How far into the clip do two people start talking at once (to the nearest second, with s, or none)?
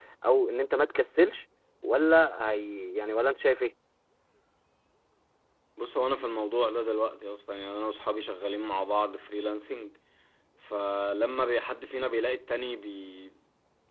none